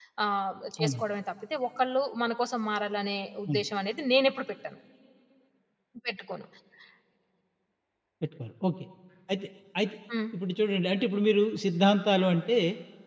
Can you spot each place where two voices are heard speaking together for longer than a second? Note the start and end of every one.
none

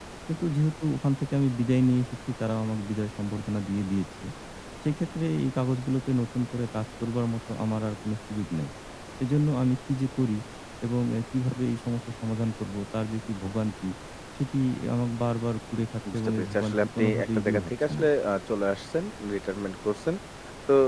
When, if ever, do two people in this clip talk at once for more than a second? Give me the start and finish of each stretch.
16.1-18.0

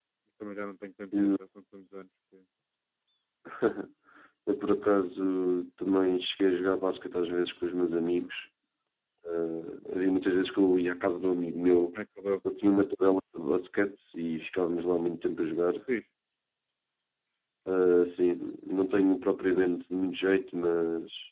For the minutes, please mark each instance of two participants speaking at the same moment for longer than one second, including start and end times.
none

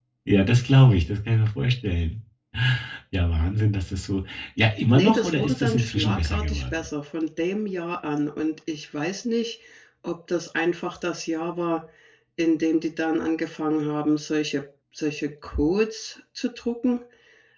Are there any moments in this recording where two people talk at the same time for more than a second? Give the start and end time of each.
4.9-6.6

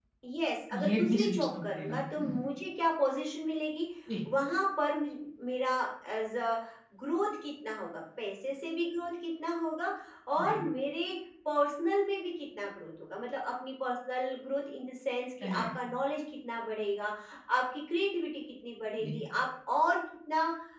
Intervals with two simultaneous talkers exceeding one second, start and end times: 0.7-2.4

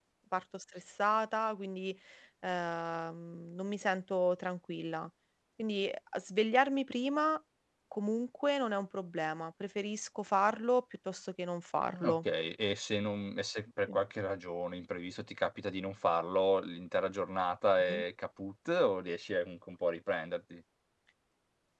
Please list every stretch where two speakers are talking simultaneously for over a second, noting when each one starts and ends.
none

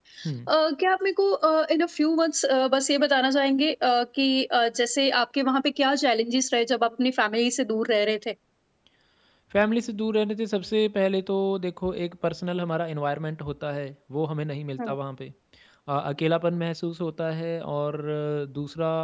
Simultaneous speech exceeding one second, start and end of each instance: none

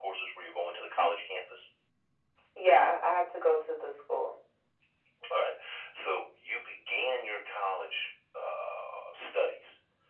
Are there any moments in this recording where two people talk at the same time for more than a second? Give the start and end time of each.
none

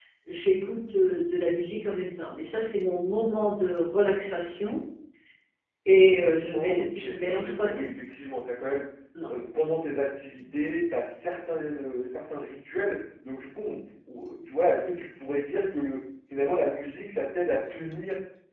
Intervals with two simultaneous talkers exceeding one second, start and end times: 6.5-7.9

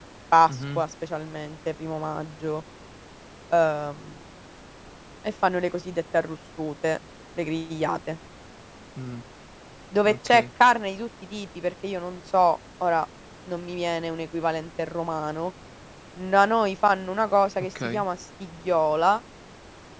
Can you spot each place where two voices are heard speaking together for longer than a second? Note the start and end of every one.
none

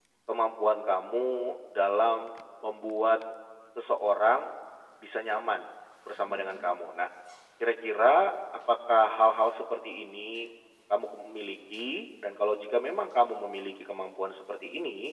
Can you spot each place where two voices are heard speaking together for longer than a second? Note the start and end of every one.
none

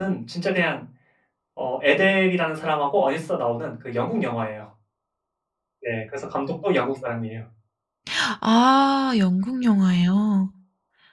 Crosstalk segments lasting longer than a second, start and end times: none

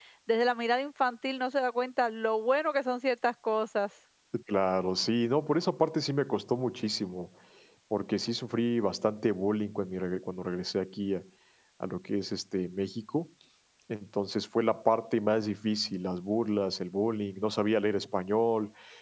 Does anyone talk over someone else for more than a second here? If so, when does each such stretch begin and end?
none

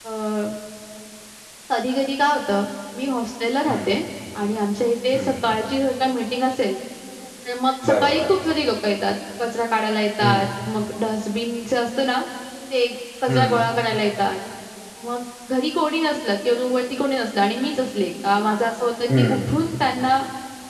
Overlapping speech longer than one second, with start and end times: none

